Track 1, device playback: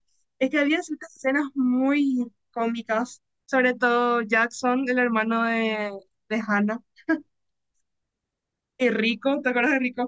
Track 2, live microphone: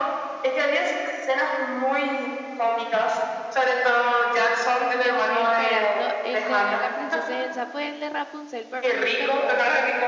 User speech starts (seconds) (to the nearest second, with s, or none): 5 s